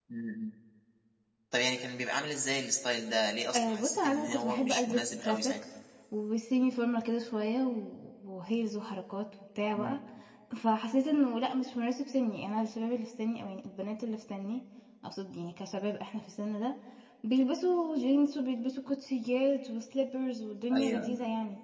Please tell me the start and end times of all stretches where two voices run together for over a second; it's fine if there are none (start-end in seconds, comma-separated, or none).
3.5-5.5